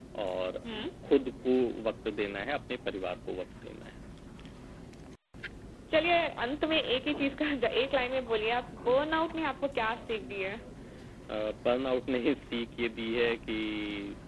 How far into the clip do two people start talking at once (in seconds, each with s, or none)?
none